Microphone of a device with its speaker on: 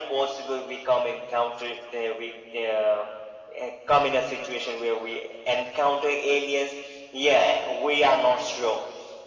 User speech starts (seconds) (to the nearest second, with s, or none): none